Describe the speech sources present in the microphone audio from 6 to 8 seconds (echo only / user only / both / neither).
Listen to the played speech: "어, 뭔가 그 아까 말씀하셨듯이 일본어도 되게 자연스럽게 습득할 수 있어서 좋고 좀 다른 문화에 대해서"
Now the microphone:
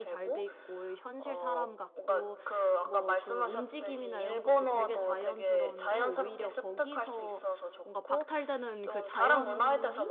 both